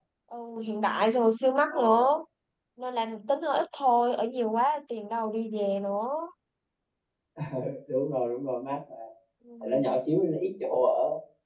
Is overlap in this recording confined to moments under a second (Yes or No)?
Yes